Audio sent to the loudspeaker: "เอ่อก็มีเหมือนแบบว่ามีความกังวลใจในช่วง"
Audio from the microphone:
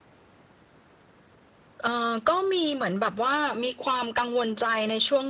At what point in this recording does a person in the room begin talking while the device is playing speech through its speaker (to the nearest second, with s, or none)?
none